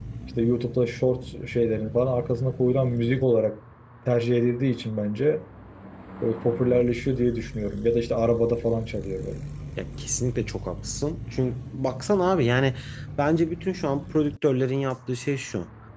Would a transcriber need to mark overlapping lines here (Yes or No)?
No